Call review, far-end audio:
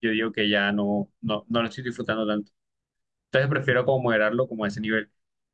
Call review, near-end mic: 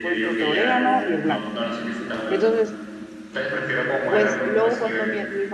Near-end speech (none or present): present